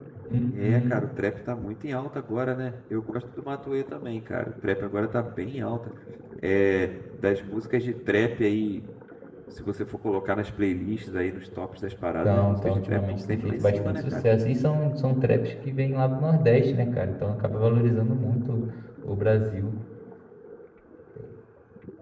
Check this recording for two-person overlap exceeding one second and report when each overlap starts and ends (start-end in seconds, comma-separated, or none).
12.2-14.2